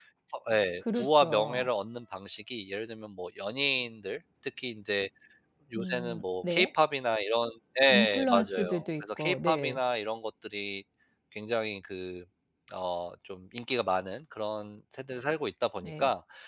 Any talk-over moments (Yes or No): Yes